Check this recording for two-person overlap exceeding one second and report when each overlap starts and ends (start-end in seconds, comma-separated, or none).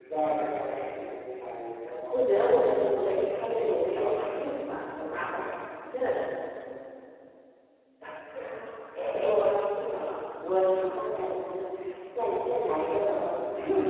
2.1-4.7